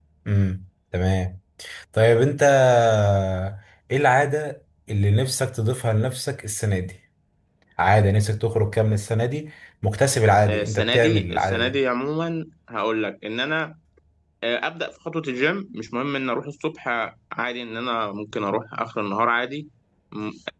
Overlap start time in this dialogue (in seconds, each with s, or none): 10.5 s